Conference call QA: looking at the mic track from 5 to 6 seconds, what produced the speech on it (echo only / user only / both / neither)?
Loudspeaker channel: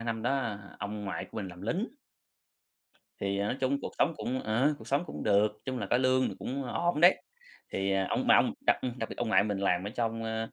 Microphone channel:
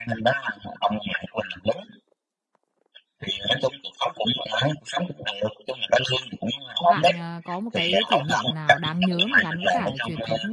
echo only